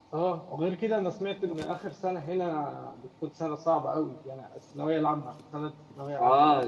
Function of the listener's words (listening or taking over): taking over